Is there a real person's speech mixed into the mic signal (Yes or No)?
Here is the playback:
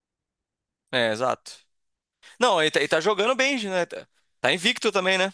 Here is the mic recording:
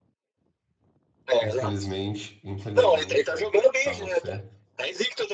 Yes